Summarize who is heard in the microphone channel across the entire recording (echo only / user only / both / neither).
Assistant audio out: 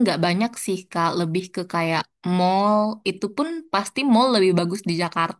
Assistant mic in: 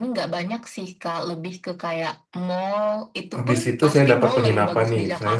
both